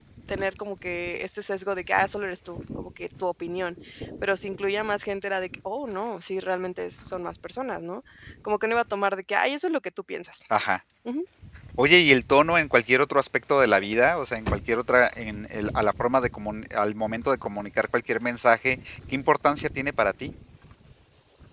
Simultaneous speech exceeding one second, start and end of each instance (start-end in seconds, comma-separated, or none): none